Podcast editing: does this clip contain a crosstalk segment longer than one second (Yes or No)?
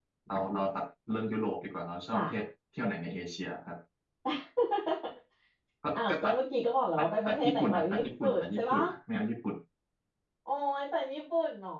Yes